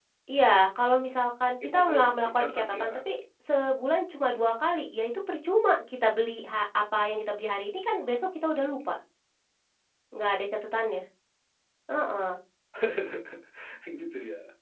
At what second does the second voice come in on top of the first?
2 s

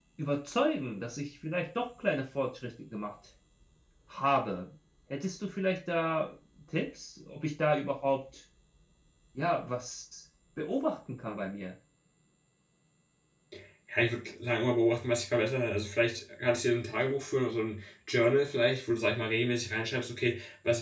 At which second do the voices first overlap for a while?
none

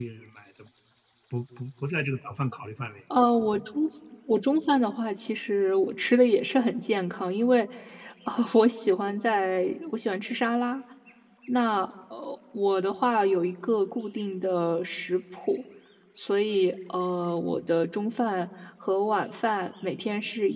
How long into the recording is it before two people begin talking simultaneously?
none

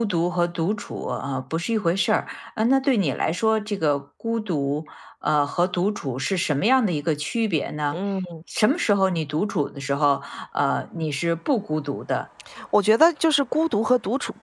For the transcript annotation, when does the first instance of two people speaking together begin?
none

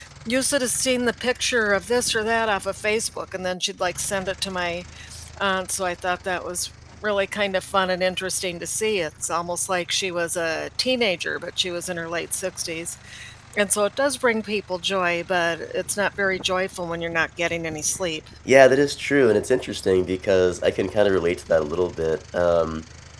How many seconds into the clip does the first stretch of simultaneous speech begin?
none

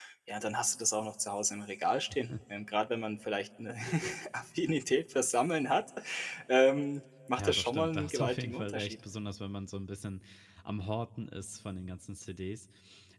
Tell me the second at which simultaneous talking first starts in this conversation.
7 s

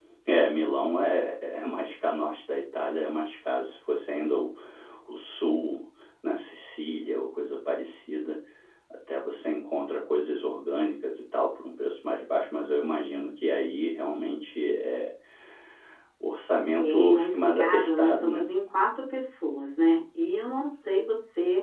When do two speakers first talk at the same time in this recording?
17 s

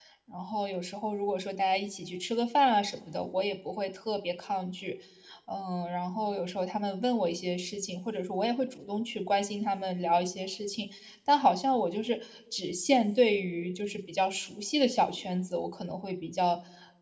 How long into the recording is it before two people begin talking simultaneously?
none

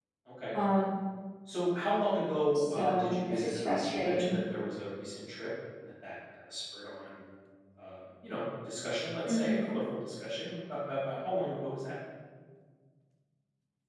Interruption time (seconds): 3 s

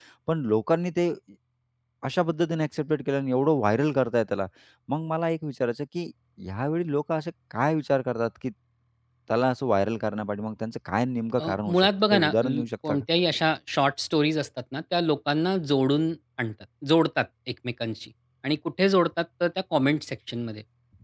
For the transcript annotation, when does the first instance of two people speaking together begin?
11 s

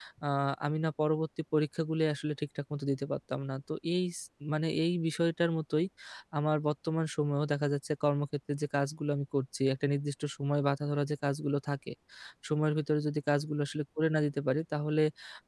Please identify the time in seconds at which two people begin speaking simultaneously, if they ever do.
none

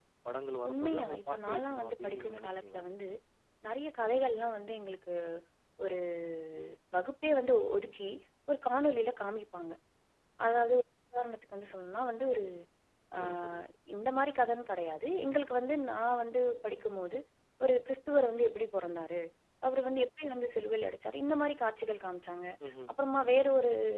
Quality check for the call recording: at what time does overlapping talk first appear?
1 s

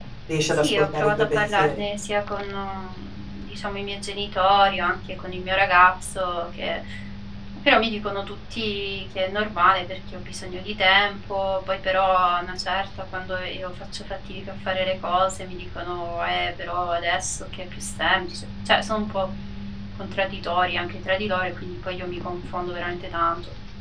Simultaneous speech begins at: 1 s

